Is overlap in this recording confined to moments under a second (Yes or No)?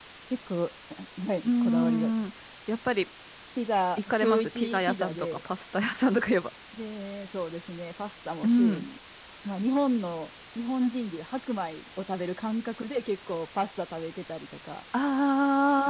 No